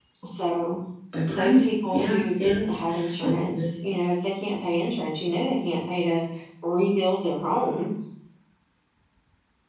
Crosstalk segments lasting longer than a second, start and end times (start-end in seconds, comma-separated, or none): 1.3-2.5